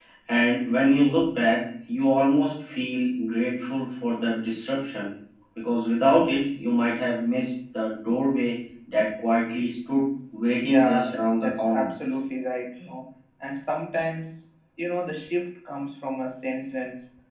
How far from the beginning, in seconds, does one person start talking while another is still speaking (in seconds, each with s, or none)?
10.6 s